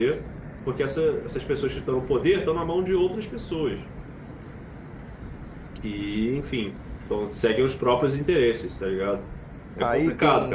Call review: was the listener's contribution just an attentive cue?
No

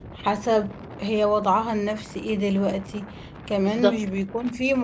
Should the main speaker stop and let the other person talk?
No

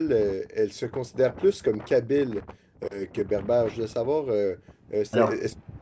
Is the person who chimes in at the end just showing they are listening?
Yes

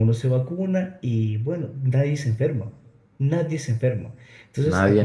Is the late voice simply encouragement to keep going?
Yes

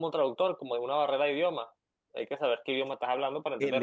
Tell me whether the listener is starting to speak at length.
Yes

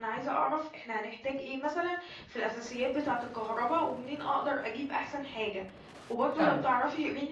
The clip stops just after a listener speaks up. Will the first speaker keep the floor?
Yes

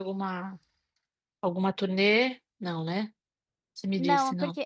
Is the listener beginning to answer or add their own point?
Yes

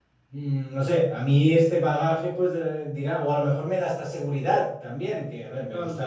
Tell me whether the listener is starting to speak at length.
No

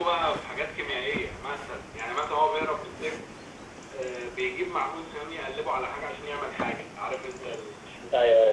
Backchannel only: No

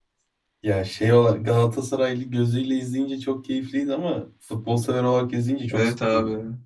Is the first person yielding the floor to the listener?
Yes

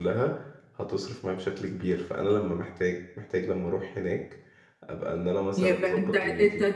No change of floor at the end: No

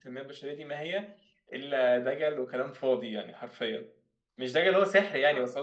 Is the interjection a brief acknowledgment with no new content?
Yes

